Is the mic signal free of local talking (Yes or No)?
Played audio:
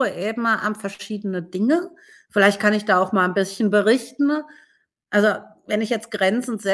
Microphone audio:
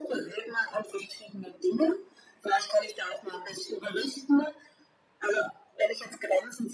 Yes